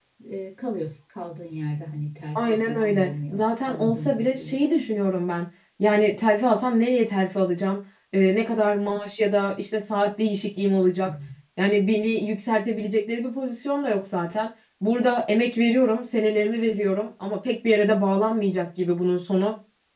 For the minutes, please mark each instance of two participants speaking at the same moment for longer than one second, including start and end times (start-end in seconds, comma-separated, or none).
2.4-4.8